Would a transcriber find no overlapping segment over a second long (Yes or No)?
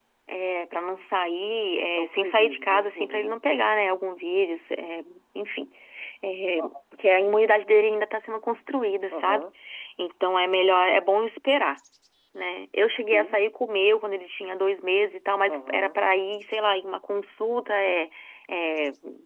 No